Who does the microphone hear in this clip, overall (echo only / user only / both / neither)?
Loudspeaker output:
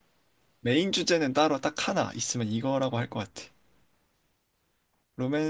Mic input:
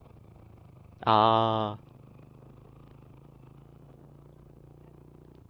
user only